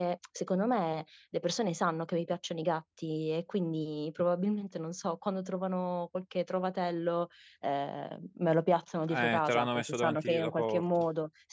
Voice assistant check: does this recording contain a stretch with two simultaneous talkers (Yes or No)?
Yes